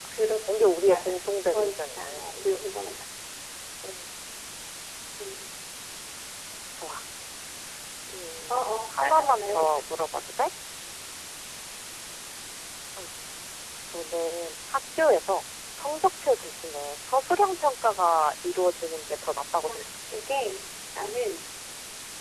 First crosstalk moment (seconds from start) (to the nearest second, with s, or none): 1 s